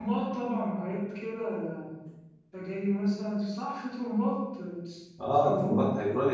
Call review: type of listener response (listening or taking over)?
taking over